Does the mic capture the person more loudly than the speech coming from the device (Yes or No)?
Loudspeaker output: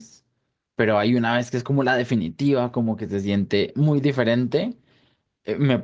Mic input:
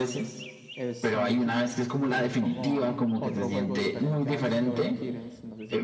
No